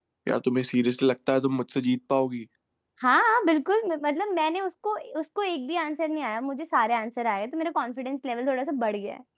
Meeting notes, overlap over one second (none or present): none